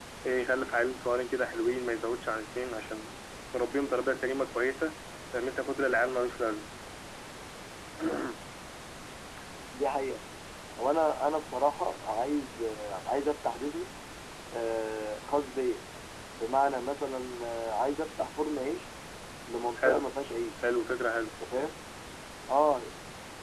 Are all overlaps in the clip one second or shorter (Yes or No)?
Yes